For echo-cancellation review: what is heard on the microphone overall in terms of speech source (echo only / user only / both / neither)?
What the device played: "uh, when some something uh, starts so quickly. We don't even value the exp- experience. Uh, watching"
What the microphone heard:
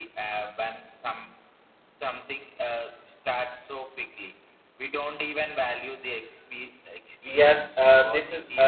both